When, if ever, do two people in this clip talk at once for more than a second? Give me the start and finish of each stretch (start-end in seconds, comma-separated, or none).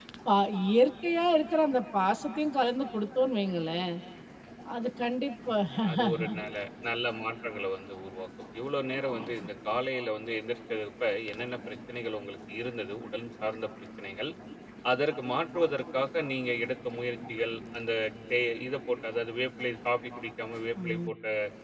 none